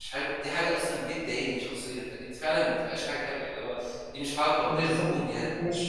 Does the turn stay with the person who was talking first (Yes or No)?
No